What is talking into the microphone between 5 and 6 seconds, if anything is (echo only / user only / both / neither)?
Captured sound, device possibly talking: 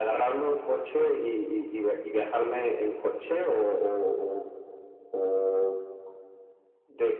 echo only